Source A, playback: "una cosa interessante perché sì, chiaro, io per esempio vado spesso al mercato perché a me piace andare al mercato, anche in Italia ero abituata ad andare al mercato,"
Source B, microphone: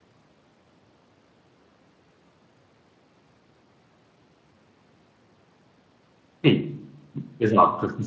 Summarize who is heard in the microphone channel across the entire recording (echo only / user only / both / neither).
user only